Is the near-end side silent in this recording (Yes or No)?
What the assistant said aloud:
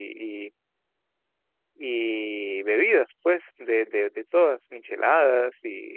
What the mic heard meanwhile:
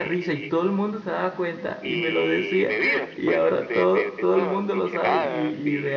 No